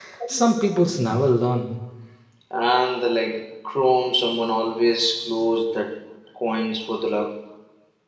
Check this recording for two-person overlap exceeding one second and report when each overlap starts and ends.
none

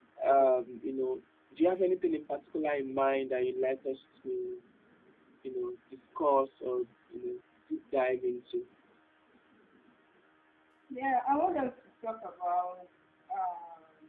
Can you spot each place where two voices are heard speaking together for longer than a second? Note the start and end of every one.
none

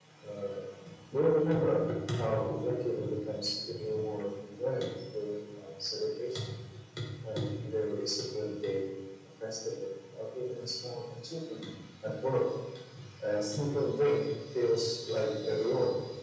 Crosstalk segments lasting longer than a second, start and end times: none

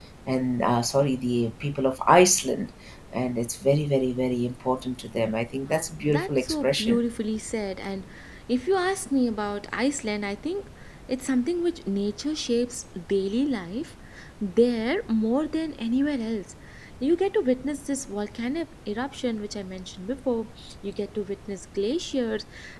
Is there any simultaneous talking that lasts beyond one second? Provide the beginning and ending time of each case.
5.7-7.0

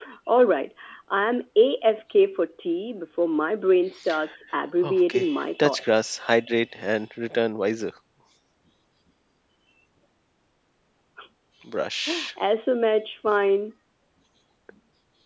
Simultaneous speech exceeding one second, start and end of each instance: 4.8-6.1

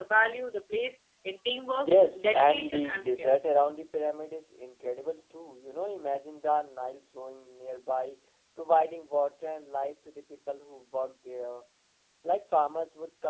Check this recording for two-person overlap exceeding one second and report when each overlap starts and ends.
1.9-3.4

